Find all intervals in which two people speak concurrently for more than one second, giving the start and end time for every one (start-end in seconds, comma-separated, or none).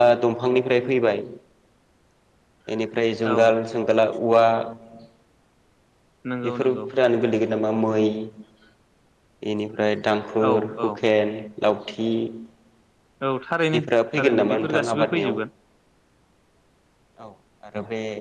14.2-15.4